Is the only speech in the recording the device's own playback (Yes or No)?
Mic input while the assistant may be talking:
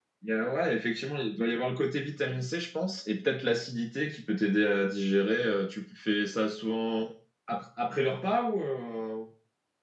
Yes